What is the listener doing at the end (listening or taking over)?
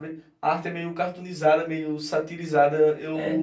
listening